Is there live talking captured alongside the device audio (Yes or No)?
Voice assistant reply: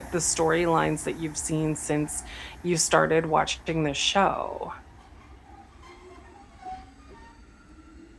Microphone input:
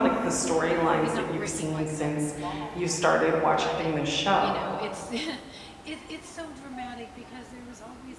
Yes